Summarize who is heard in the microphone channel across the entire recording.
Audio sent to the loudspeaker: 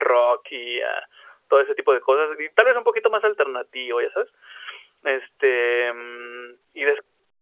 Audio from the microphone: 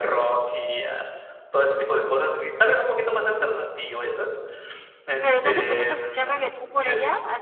both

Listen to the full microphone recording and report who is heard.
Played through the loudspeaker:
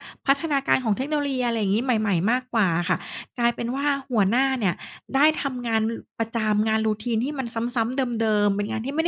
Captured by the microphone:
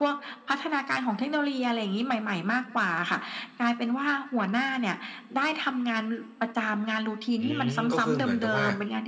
both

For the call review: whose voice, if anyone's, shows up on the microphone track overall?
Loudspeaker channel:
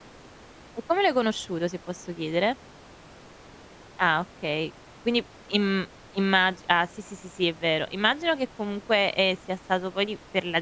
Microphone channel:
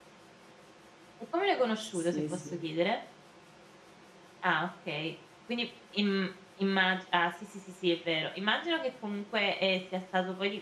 both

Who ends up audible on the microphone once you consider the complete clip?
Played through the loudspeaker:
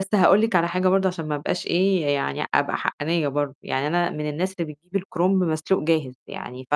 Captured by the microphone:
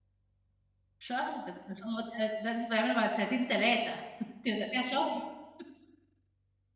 user only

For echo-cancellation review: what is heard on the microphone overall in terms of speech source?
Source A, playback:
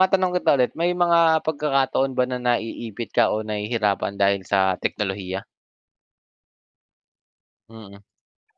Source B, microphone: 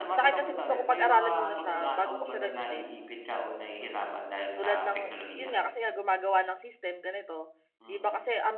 both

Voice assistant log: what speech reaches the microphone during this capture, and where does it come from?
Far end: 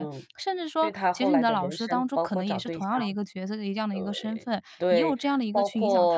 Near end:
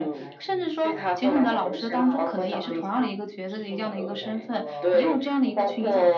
both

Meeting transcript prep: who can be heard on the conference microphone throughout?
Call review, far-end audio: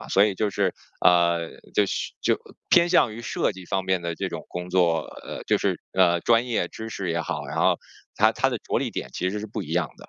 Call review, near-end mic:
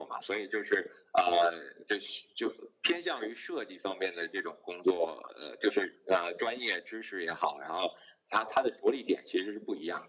echo only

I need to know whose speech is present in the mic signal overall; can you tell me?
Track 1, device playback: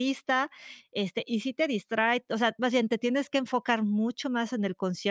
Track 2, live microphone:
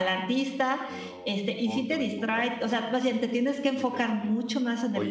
both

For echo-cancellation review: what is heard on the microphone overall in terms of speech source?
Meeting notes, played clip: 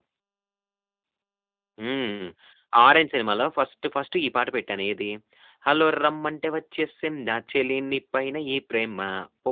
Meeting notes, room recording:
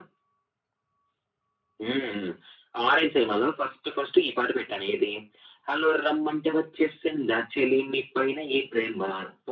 echo only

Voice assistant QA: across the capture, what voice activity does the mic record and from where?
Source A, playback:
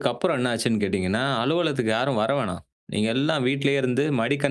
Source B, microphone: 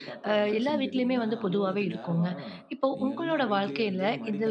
both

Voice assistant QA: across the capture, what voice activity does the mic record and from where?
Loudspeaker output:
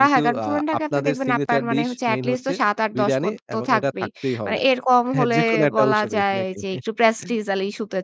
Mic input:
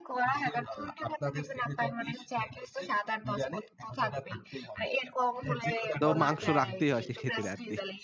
both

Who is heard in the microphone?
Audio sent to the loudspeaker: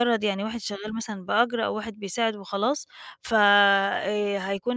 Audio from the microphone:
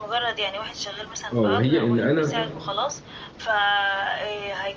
both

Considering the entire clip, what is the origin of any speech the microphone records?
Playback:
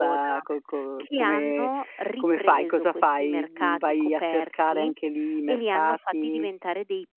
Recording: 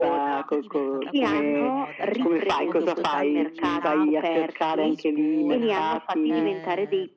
both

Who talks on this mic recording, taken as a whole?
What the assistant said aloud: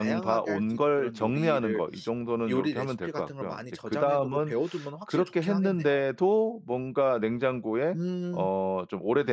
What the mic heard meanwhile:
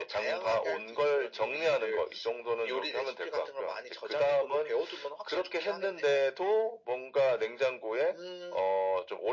echo only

